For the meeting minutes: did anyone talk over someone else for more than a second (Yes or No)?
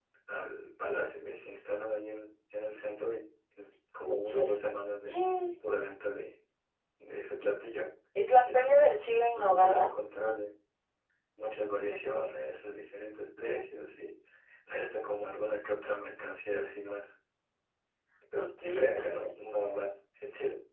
Yes